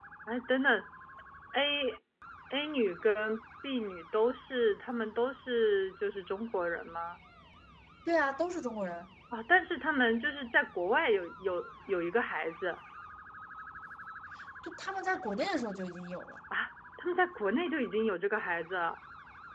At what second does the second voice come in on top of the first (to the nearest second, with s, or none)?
none